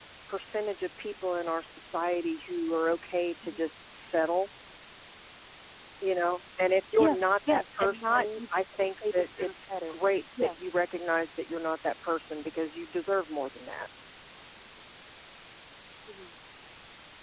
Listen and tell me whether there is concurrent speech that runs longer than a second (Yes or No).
Yes